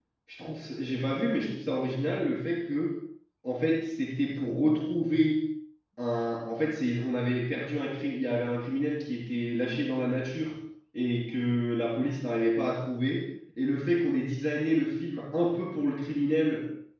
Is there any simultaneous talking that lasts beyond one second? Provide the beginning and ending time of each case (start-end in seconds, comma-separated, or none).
none